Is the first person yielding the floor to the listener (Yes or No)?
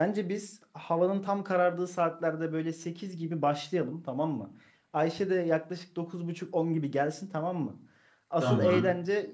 No